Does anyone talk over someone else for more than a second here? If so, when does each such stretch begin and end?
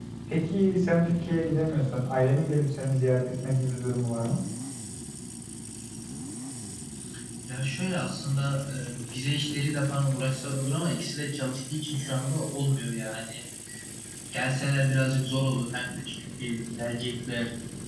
none

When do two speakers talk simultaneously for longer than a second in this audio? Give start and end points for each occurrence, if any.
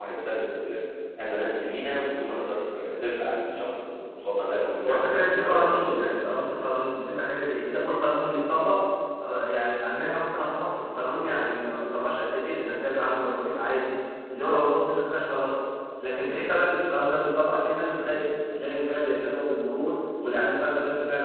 4.8-6.1

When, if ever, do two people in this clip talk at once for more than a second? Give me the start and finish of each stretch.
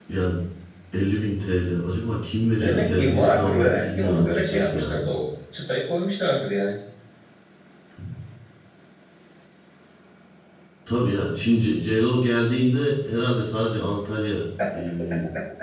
2.6-5.0

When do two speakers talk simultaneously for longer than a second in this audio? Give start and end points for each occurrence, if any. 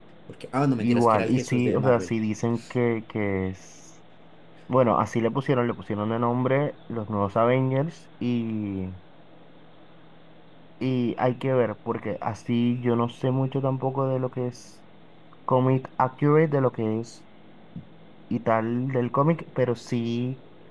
0.8-2.1

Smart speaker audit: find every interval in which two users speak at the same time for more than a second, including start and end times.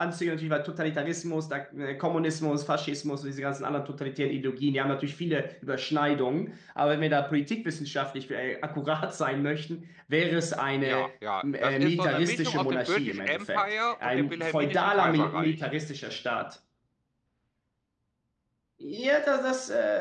11.4-15.7

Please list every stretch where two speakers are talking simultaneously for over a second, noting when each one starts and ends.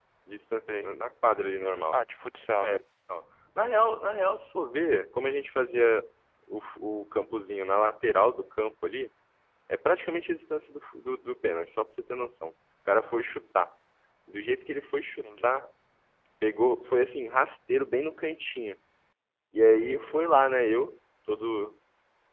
none

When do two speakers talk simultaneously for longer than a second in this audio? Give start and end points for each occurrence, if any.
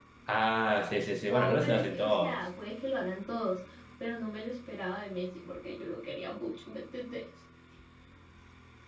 1.2-2.4

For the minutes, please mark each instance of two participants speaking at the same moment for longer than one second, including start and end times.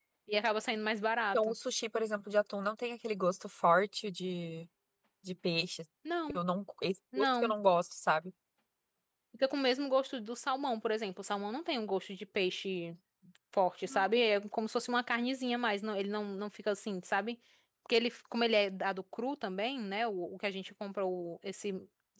none

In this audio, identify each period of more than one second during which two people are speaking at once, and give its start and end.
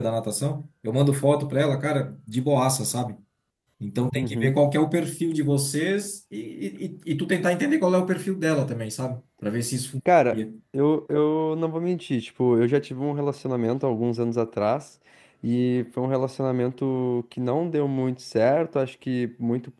none

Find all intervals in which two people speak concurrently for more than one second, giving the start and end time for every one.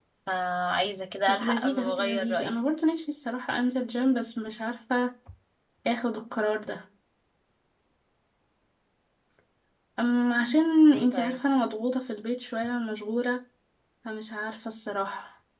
1.3-2.5

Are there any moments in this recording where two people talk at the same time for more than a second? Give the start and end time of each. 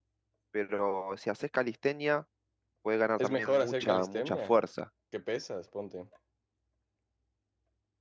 3.2-4.5

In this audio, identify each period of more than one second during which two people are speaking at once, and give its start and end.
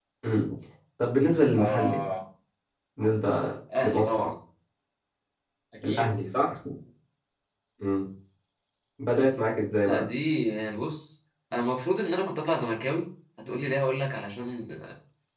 none

